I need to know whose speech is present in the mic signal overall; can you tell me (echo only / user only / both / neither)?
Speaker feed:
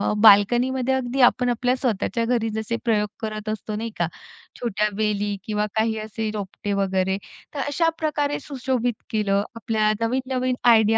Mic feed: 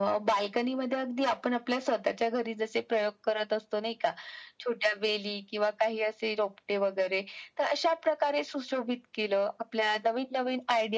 echo only